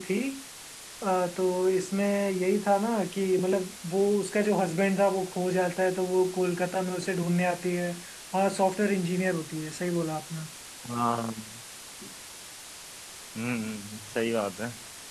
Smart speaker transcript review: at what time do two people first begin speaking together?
none

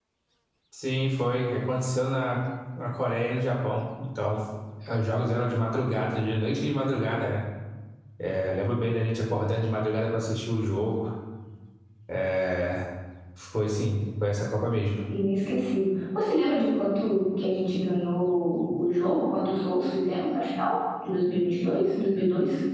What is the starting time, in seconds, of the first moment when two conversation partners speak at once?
none

